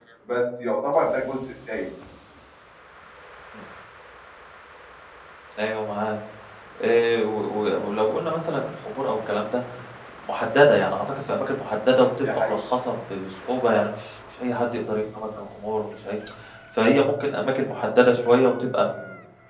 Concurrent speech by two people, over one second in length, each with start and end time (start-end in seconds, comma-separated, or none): none